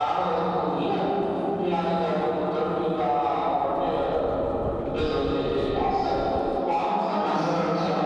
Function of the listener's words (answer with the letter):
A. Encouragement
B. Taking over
A